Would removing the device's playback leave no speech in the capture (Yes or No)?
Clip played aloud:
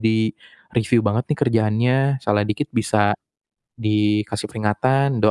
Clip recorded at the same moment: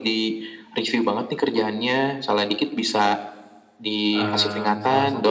No